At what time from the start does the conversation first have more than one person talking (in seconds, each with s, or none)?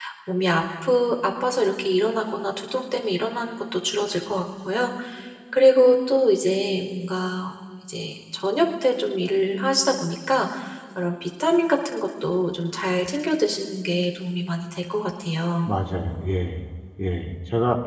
none